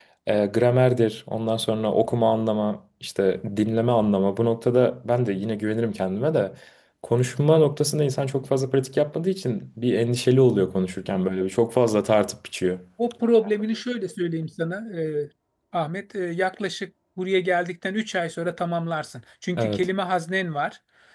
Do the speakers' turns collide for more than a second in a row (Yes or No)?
No